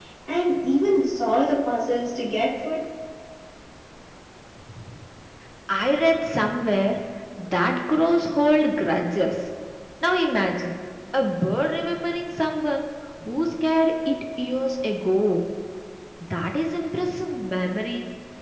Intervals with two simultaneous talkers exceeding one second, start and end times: none

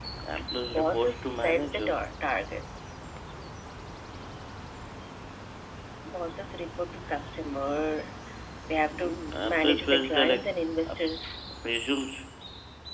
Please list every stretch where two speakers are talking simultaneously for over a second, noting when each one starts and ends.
0.7-2.0, 8.9-10.5

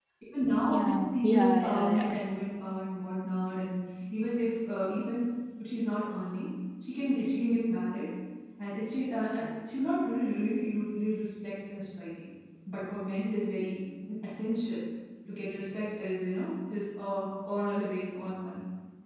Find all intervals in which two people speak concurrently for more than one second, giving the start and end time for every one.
0.7-2.2

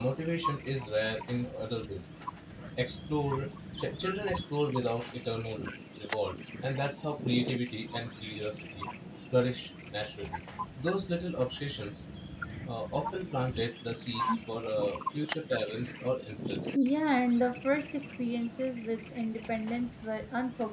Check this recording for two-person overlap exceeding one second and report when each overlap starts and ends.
none

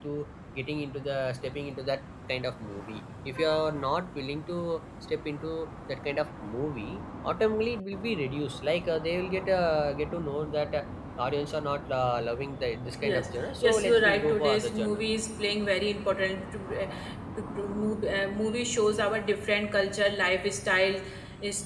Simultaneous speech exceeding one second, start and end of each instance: 13.0-15.0

